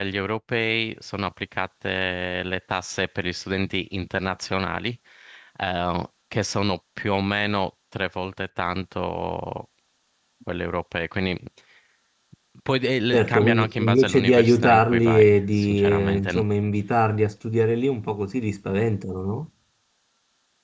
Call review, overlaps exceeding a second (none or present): present